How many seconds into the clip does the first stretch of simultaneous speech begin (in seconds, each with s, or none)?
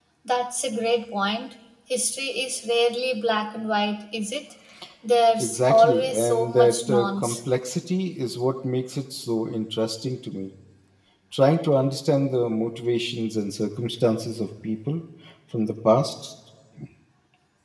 5.4 s